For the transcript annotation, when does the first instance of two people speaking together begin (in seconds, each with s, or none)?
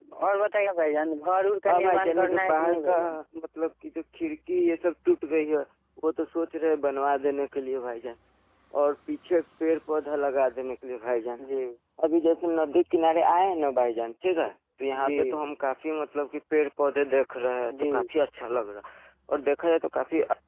1.7 s